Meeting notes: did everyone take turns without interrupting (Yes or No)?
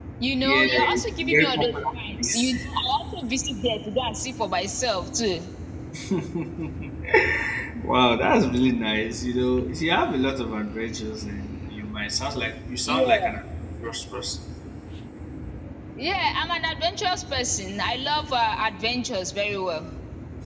No